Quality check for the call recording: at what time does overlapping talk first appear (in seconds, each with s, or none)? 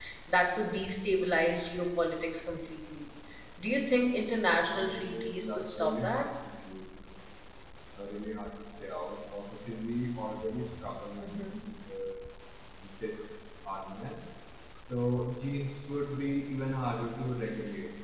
4.7 s